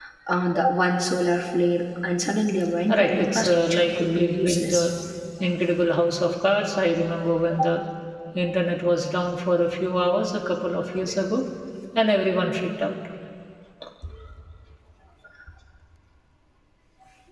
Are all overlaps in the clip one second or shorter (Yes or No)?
No